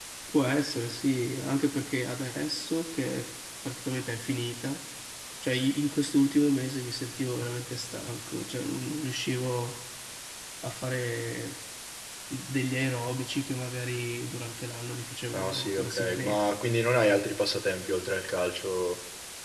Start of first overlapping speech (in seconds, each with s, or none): 15.3 s